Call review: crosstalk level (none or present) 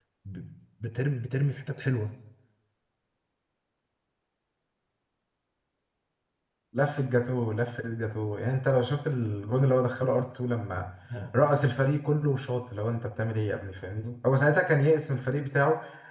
none